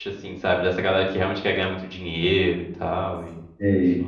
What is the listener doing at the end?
taking over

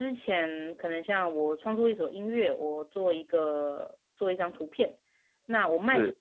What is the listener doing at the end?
listening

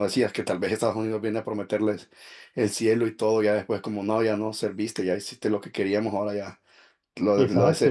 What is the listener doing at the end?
taking over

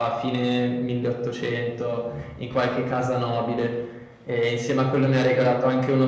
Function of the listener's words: listening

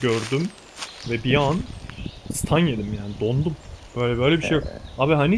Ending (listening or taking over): listening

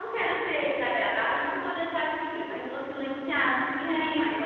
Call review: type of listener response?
taking over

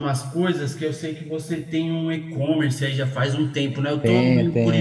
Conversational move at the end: listening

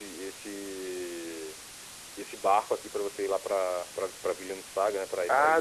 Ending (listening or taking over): taking over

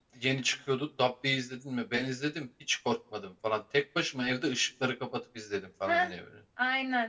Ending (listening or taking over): taking over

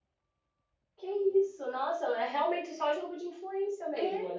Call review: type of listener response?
taking over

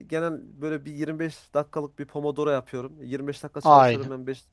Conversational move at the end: listening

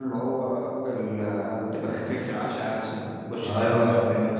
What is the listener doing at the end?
taking over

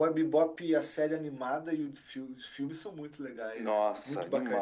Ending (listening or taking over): taking over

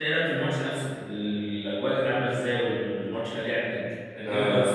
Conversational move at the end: taking over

